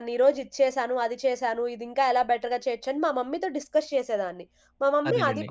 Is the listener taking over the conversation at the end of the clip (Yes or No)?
No